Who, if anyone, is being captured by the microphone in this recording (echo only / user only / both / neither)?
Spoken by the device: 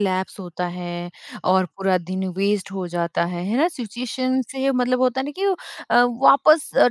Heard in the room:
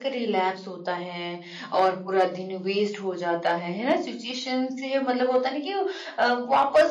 echo only